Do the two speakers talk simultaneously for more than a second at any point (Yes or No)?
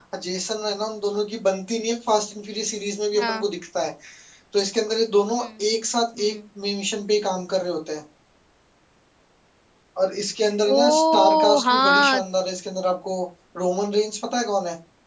Yes